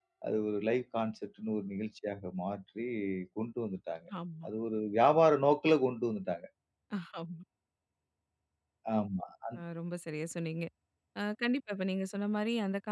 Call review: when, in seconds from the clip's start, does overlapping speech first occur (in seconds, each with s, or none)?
none